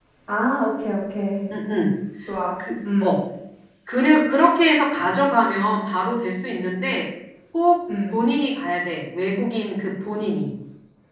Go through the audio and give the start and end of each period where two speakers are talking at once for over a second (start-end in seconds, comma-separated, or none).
none